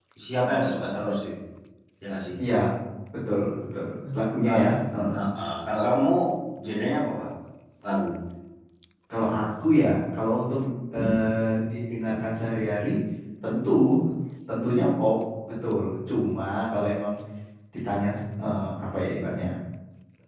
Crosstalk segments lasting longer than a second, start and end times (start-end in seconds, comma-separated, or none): none